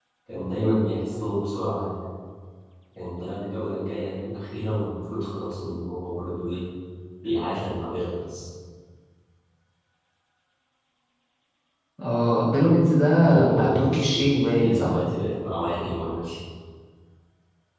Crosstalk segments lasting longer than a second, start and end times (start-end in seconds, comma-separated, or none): 13.4-15.0